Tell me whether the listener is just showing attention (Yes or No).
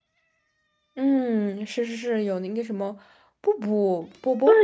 No